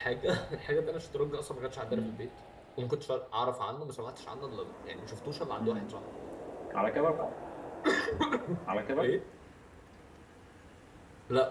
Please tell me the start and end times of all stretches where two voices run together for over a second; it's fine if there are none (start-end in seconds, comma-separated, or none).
none